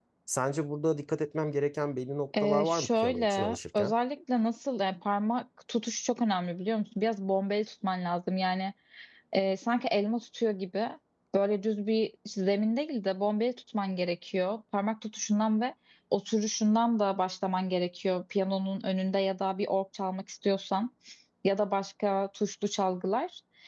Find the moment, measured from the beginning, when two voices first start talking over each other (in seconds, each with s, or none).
2.3 s